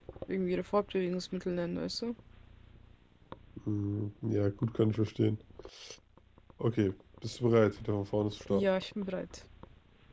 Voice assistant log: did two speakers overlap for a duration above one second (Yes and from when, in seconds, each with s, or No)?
No